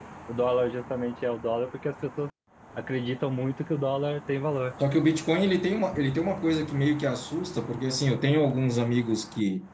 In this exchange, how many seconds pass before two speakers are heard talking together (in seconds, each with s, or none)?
none